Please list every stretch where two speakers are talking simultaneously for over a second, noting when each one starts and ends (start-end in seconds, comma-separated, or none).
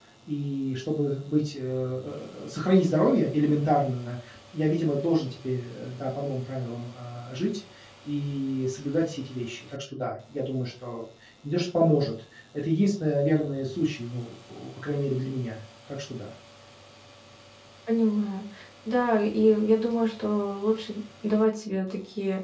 none